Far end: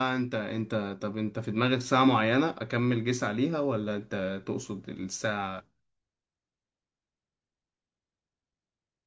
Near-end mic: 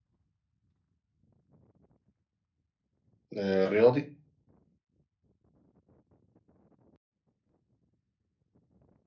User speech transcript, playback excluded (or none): آه، رياضي